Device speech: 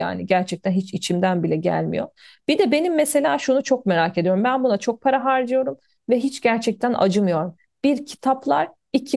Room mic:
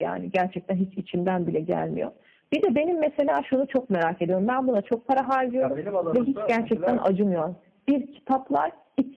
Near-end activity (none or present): present